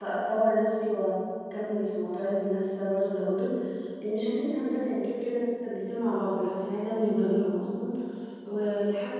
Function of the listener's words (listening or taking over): listening